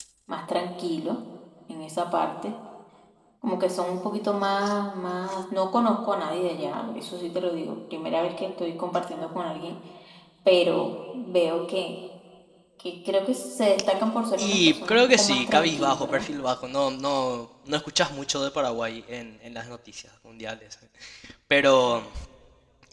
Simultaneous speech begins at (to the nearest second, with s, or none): 14 s